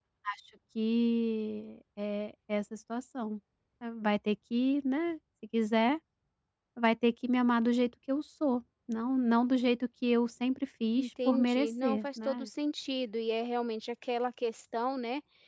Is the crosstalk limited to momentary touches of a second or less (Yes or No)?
No